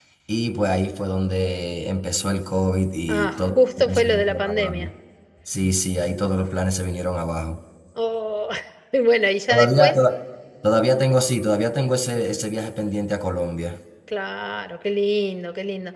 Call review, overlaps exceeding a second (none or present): present